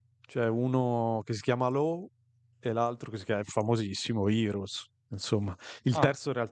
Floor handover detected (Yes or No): No